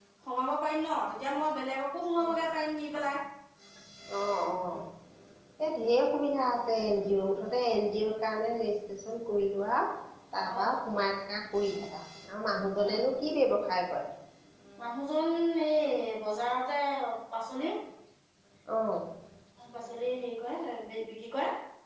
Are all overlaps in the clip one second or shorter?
Yes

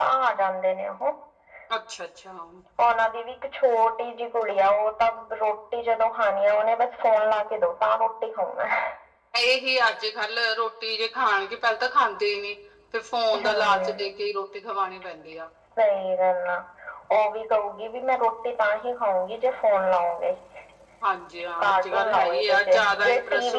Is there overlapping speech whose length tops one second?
Yes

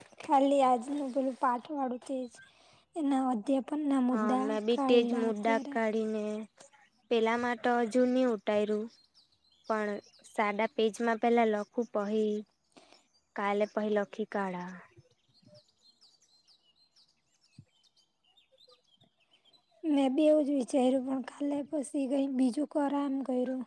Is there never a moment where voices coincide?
No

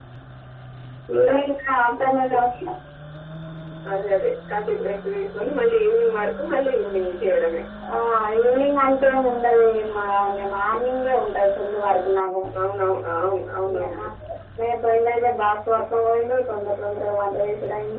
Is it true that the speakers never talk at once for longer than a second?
Yes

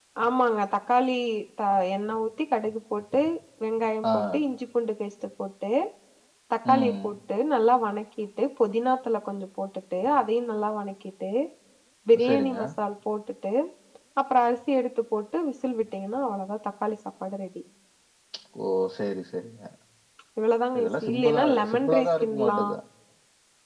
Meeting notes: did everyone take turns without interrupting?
No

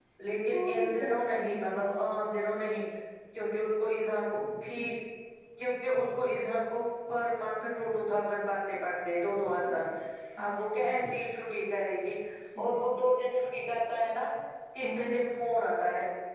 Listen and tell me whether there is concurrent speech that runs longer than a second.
Yes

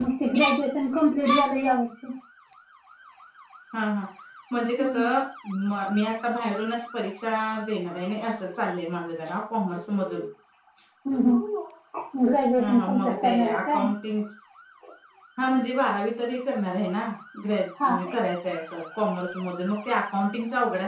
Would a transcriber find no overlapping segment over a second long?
No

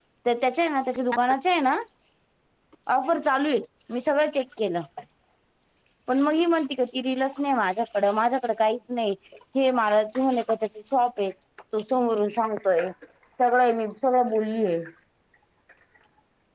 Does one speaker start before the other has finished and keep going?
No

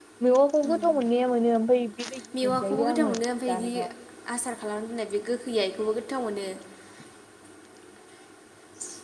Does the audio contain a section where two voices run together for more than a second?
Yes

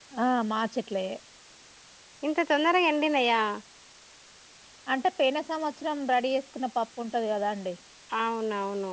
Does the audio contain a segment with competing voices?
No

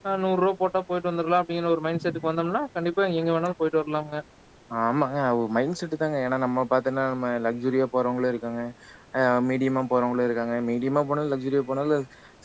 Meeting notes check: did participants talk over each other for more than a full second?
No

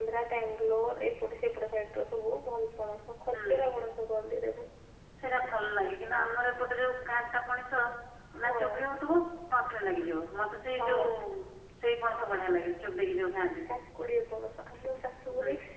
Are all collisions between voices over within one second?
Yes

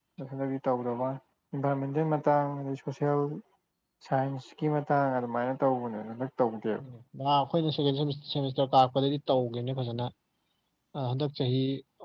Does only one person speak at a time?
Yes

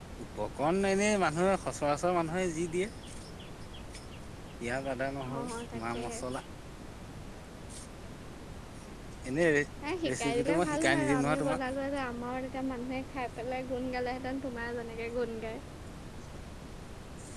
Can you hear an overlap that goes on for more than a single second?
Yes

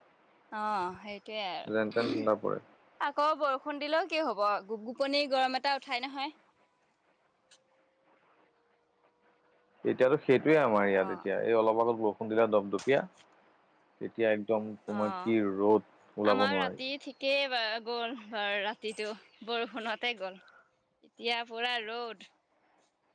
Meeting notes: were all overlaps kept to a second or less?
Yes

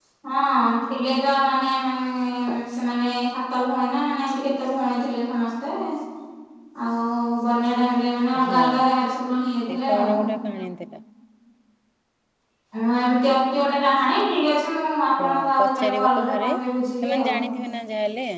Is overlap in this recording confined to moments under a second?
No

